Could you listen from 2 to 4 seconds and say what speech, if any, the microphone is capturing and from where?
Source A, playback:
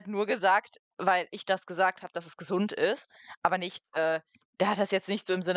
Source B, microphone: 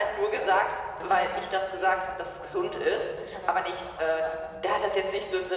both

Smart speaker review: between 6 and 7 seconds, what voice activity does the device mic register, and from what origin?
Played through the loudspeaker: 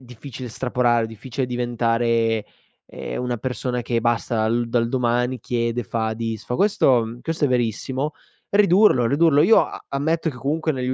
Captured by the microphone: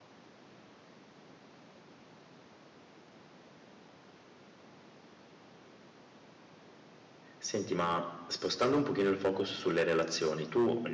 neither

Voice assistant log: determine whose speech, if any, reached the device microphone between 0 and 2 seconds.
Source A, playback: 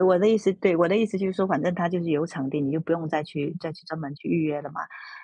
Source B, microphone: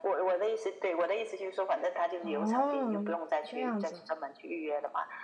echo only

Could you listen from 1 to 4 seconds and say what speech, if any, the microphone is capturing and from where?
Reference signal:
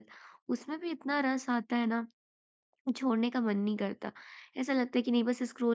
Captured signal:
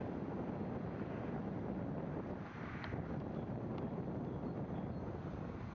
neither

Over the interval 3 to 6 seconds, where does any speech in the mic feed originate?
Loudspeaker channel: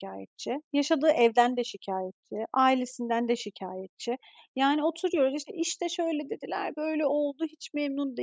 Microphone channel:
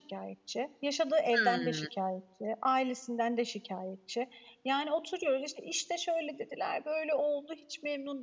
echo only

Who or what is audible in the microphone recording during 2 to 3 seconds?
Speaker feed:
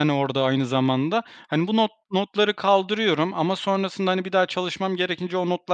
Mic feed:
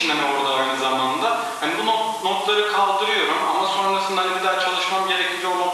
echo only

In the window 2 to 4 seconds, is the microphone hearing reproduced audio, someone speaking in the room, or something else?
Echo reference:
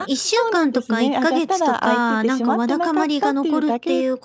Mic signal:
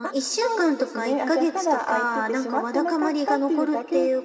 echo only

